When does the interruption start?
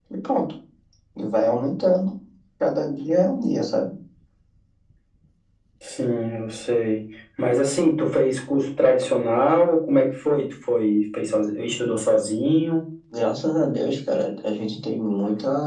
none

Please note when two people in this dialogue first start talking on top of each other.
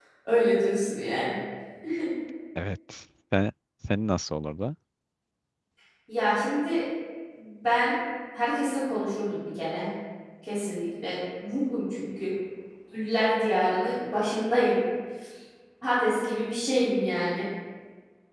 none

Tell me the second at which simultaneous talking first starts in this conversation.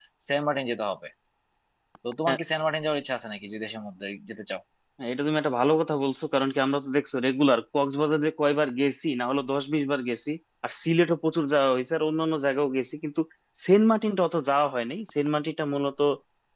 none

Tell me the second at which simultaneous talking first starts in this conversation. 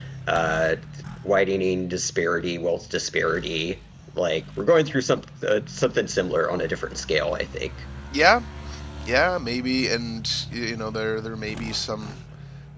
none

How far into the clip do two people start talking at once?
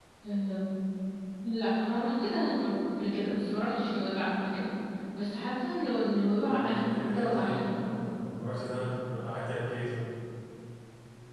6.4 s

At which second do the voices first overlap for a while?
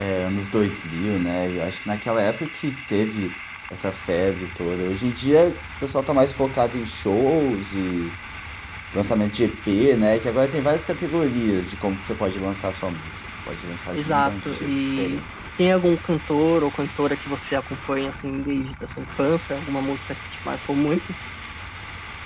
13.9 s

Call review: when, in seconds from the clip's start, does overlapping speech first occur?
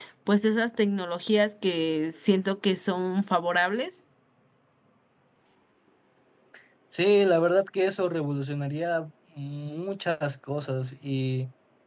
none

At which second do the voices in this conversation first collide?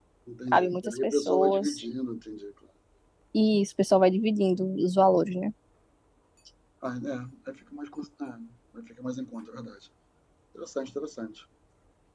0.5 s

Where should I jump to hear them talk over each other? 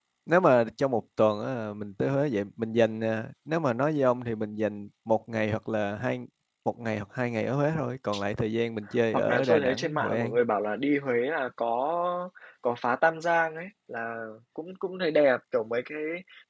9.1 s

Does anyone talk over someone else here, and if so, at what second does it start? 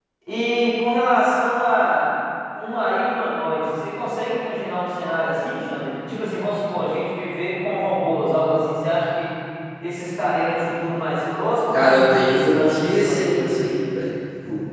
11.7 s

